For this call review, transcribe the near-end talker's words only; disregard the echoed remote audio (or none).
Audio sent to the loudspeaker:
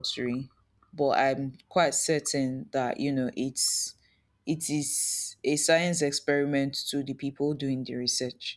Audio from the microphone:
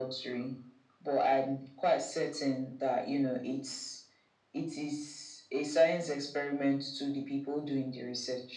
none